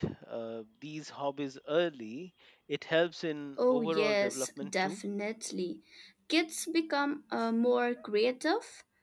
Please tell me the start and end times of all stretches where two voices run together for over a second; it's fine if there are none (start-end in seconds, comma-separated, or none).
3.7-5.0